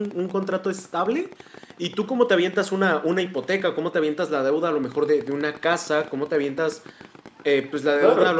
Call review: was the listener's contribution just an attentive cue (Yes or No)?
Yes